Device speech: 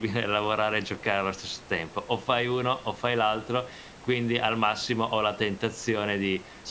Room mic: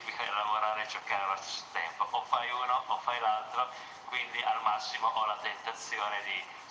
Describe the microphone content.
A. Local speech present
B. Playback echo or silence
B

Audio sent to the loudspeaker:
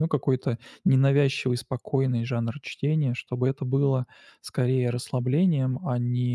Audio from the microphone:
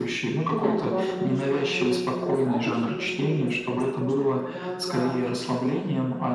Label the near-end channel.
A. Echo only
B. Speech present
B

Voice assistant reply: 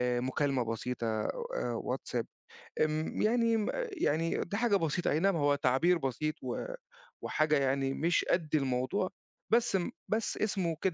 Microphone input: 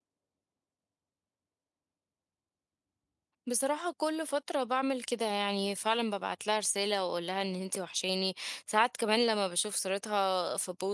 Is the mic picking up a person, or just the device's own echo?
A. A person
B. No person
A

